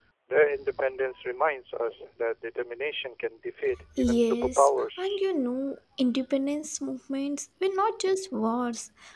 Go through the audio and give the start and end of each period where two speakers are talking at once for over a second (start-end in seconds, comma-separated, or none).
4.0-5.2